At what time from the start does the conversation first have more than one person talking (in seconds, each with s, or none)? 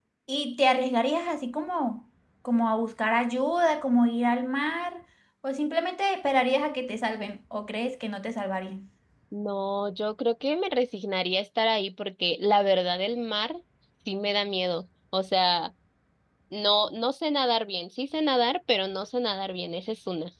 none